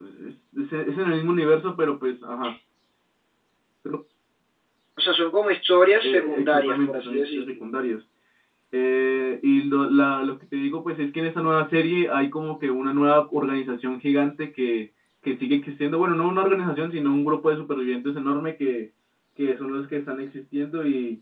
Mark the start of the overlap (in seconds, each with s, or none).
6.0 s